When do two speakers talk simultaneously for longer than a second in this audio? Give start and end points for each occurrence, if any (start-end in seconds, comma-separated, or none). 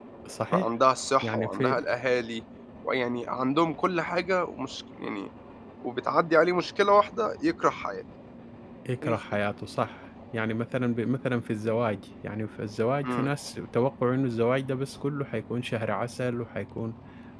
none